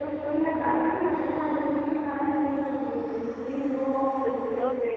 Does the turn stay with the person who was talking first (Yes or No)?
No